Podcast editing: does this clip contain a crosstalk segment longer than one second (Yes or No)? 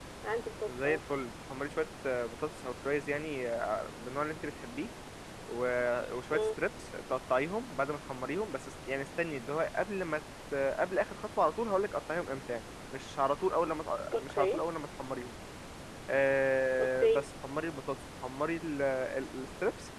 No